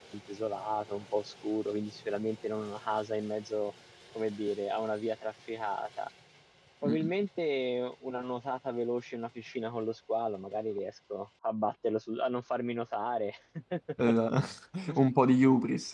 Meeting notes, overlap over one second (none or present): none